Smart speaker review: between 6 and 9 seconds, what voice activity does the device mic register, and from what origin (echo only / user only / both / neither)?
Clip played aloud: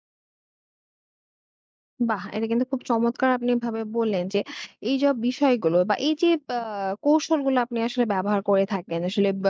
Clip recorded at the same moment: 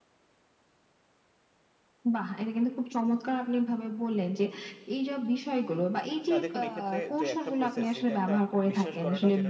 both